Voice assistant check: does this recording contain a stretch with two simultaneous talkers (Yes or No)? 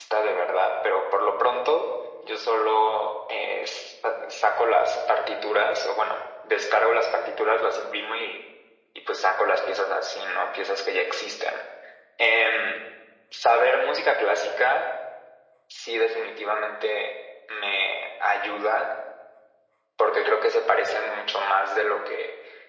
No